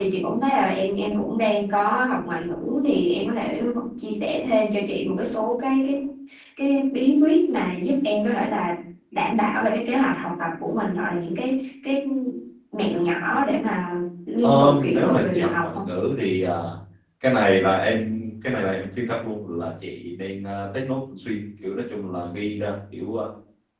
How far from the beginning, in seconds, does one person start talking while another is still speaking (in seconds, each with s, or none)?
14.4 s